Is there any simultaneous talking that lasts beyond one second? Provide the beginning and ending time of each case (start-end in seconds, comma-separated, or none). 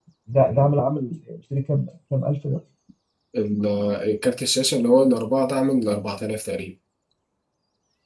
none